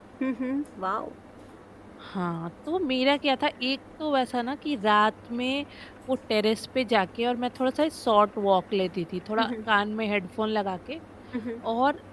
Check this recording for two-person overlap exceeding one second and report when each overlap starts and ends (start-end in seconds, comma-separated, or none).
none